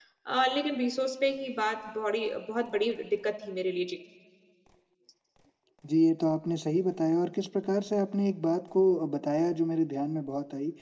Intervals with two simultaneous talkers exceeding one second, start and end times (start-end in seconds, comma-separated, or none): none